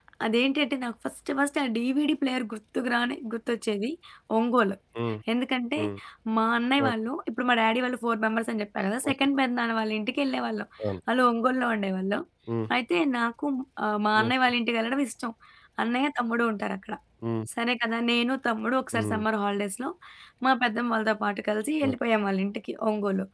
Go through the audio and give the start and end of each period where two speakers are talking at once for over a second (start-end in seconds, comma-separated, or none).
none